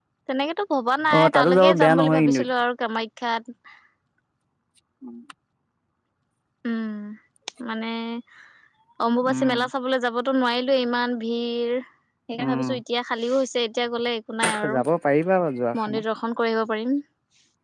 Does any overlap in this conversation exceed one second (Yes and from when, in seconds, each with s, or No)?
Yes, from 1.2 s